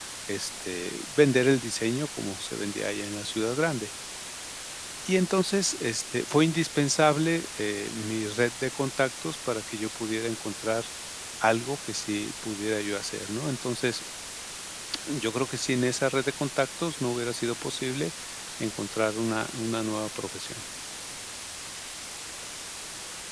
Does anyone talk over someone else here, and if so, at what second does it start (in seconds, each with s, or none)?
none